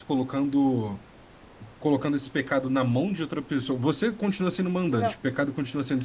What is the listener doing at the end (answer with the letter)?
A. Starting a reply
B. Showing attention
B